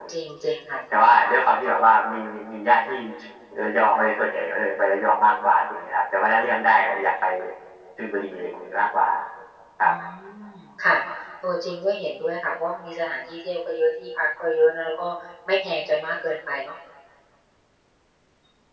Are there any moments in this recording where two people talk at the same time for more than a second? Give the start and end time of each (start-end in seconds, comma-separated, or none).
none